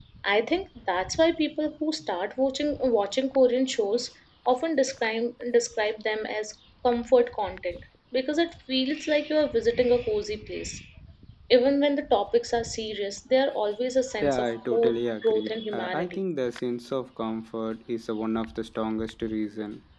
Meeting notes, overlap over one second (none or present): present